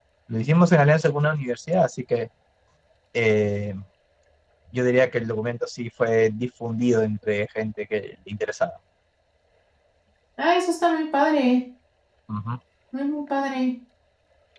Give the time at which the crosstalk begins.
none

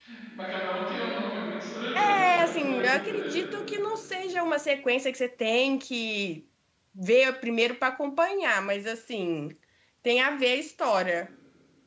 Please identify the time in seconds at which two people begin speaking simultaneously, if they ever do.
2.2 s

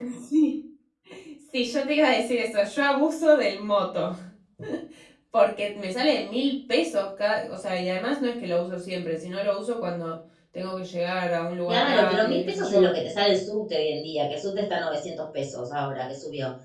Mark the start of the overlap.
11.7 s

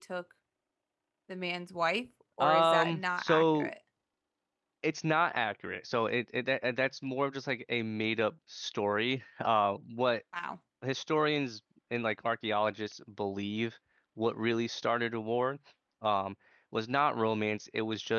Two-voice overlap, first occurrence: 2.4 s

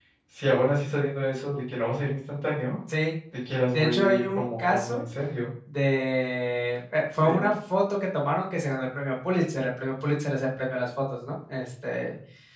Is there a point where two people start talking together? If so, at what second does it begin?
3.7 s

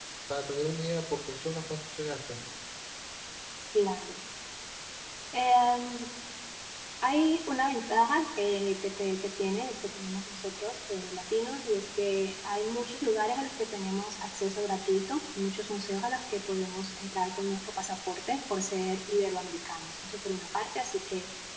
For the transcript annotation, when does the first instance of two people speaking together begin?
none

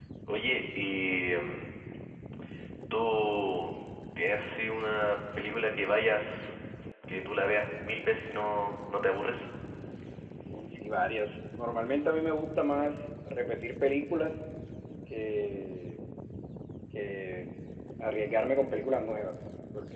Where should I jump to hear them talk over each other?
none

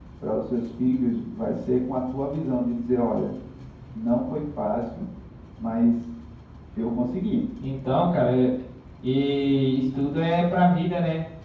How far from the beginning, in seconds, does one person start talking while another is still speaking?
none

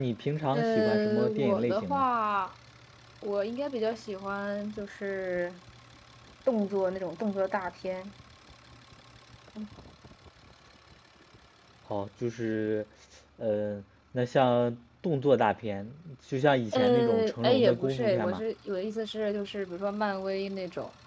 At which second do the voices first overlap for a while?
0.5 s

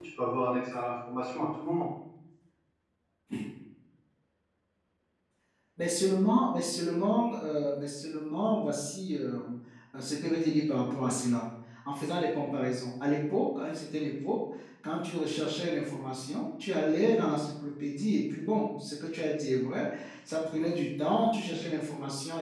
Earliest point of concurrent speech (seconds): none

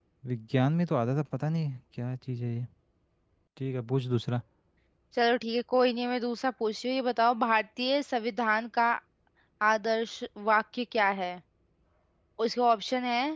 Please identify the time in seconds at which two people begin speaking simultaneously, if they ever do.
none

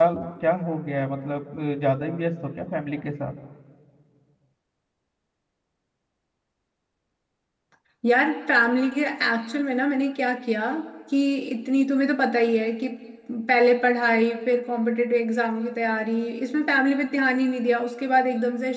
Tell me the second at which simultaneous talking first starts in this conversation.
none

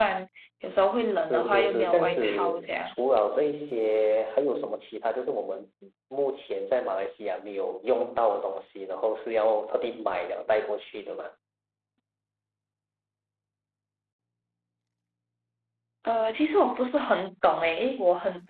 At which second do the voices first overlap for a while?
1.3 s

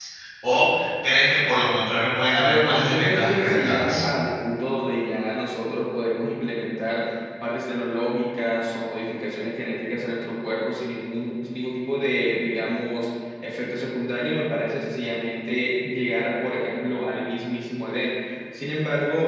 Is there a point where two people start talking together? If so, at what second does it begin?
2.4 s

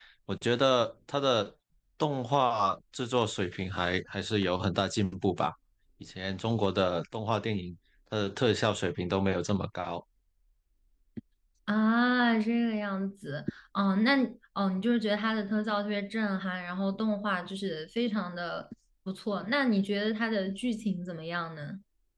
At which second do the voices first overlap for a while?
none

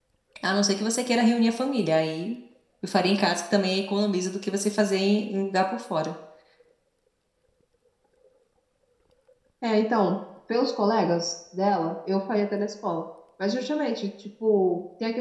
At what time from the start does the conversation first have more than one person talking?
none

